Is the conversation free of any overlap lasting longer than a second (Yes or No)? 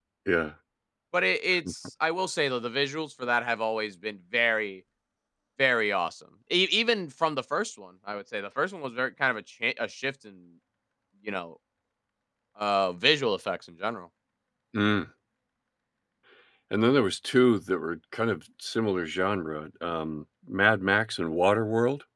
Yes